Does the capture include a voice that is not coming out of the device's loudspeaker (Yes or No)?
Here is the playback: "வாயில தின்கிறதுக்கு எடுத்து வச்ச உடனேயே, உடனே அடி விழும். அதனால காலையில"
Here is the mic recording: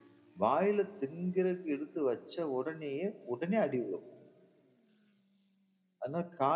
No